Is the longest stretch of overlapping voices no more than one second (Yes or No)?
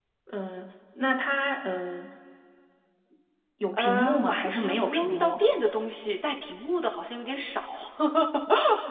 No